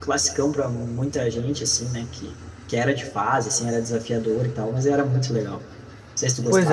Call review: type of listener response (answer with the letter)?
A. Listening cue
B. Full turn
B